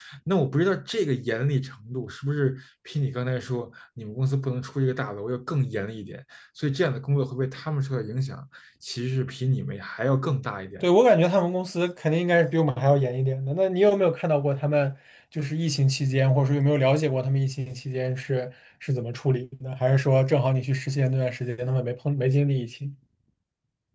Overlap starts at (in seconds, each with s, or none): none